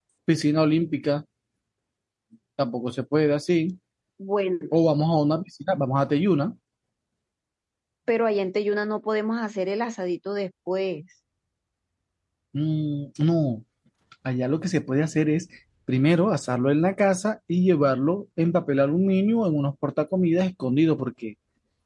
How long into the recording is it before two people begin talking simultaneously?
none

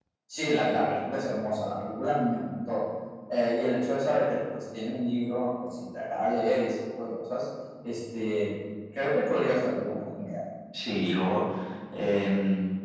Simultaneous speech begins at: none

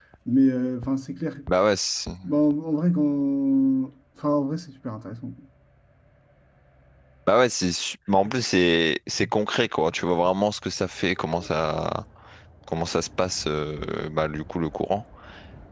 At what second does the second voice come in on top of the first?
none

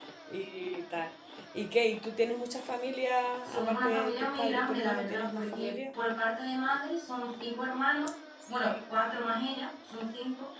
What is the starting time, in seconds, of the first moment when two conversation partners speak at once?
3 s

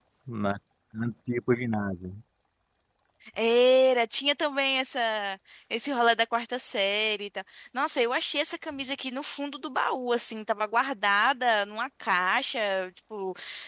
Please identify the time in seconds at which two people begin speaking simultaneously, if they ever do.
none

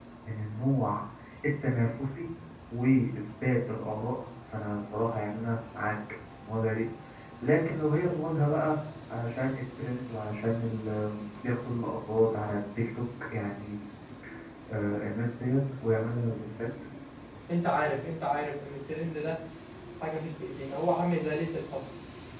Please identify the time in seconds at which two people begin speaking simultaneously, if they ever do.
none

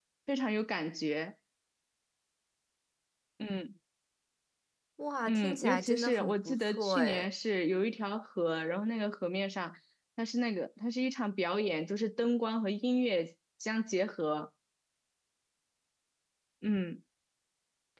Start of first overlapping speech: 5 s

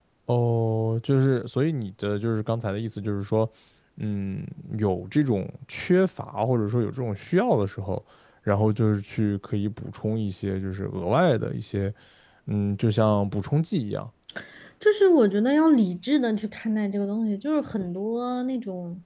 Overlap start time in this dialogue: none

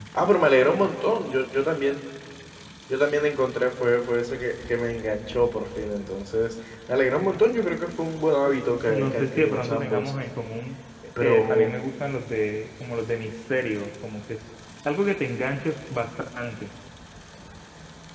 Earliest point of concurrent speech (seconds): 9 s

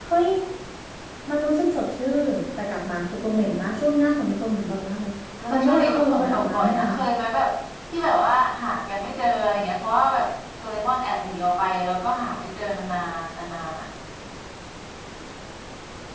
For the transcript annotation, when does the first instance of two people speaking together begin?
6 s

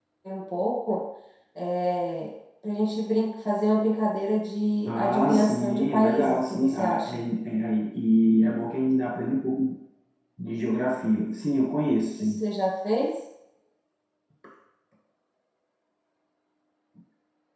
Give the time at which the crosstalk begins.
5 s

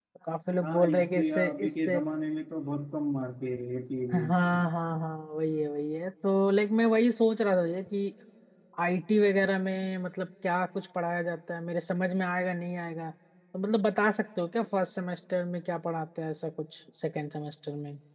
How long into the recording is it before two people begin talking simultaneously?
1 s

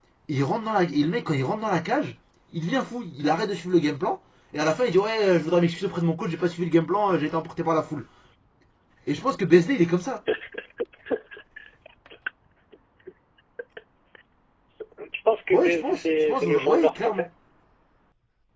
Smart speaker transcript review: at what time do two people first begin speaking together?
16 s

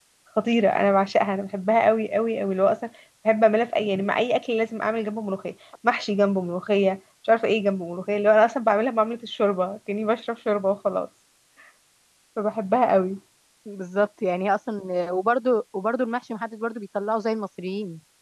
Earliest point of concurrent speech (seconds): none

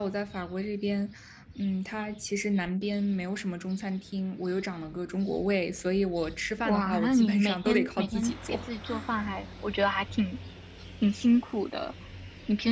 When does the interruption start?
7 s

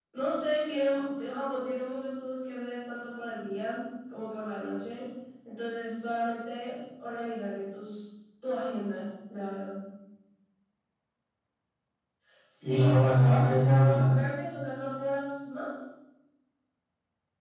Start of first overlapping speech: 13 s

